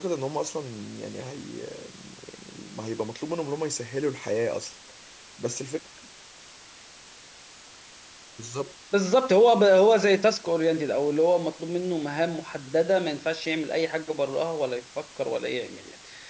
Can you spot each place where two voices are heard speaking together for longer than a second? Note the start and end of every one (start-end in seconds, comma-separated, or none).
none